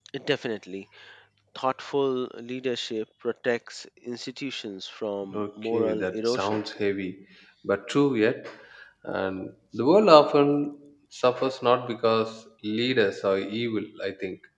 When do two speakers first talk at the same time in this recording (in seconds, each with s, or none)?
5.3 s